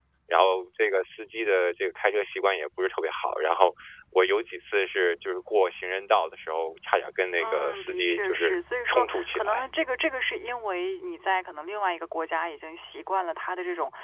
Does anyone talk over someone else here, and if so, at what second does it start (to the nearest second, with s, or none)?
7 s